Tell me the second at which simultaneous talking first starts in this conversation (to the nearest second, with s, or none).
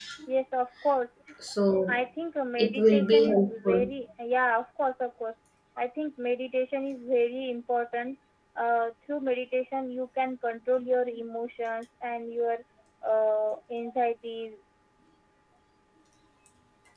3 s